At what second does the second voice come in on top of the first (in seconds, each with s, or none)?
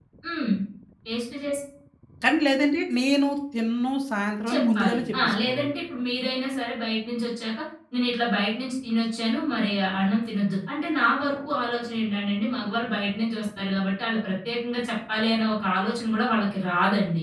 4.5 s